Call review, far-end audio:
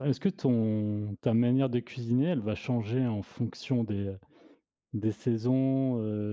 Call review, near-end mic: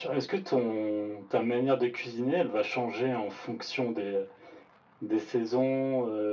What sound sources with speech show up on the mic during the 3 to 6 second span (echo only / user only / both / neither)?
echo only